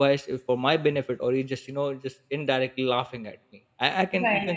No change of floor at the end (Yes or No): Yes